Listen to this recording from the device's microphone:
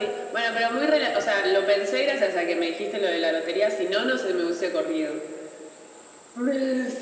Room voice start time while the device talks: none

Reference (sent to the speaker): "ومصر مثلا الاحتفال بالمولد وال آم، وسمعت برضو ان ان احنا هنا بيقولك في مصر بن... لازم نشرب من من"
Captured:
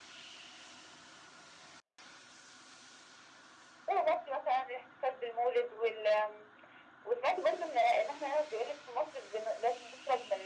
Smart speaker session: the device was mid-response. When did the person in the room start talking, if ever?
none

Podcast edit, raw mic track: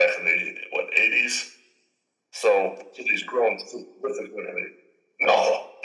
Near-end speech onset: none

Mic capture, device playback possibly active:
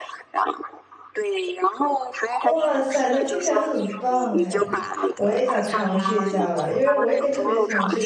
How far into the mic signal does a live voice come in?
2.4 s

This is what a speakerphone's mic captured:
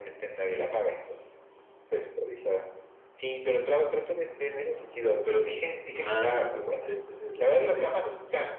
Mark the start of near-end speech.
6.0 s

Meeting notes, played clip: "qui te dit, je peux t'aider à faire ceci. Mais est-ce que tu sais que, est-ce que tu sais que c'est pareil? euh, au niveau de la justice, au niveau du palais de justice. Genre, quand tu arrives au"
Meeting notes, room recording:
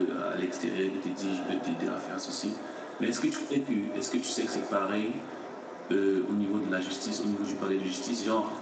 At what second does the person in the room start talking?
none

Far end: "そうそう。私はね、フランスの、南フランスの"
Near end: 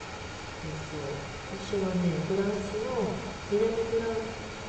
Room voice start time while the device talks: none

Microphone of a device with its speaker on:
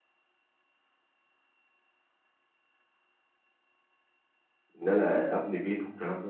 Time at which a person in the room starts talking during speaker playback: 4.8 s

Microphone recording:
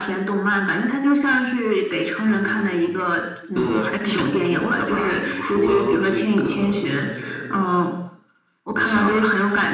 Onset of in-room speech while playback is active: none

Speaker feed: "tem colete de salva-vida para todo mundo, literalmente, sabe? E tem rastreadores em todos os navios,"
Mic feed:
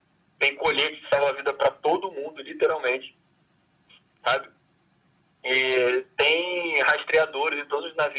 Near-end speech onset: none

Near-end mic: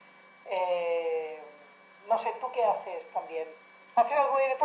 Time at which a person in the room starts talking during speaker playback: none

